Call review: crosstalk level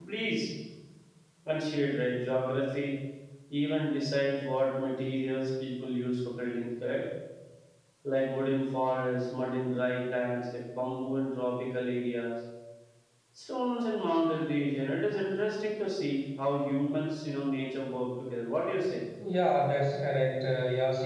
none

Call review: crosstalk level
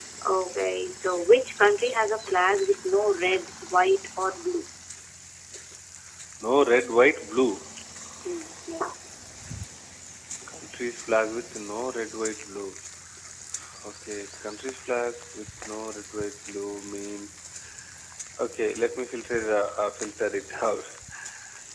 none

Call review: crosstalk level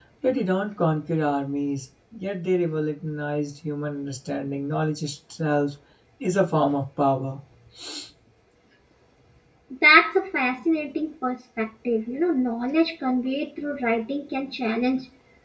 none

